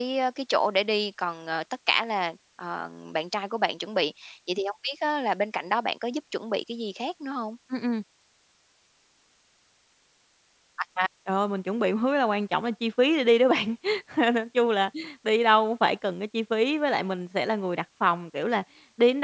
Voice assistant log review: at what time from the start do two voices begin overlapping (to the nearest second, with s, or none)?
none